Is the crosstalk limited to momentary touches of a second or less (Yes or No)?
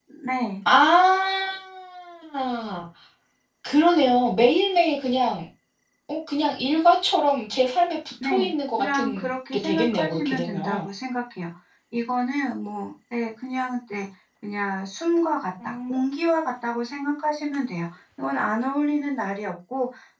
No